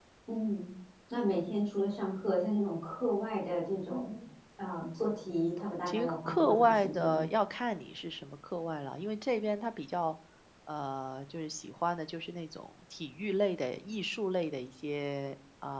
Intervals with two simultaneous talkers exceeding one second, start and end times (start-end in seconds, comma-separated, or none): 5.8-7.3